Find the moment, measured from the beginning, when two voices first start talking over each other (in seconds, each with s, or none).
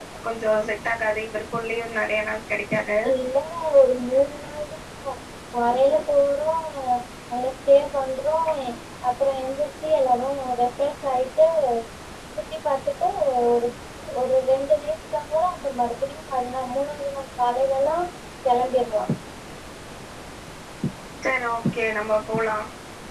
none